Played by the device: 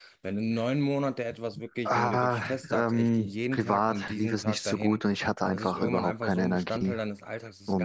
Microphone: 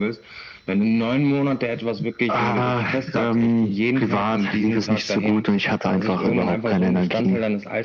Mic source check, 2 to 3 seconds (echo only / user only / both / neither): echo only